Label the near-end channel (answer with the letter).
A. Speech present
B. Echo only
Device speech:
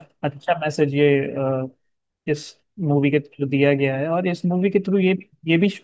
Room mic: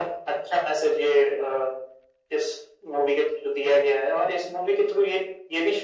B